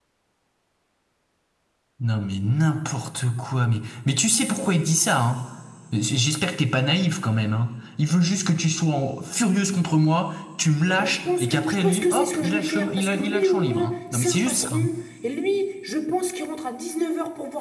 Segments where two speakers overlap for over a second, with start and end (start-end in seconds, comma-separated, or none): 10.9-14.8